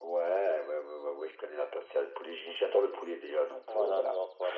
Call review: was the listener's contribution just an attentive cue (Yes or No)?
No